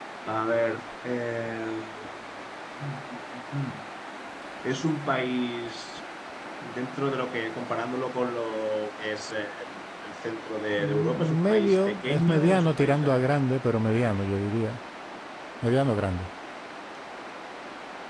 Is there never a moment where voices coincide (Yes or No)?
No